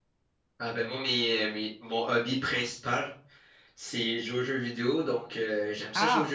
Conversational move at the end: listening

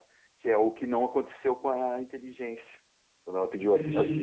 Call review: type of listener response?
taking over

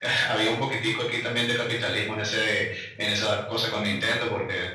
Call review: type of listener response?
listening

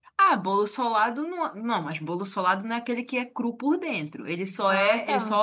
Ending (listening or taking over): listening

